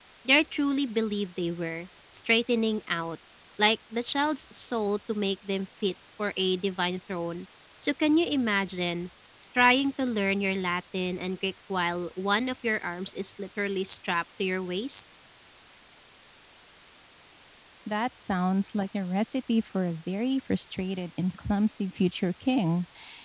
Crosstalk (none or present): none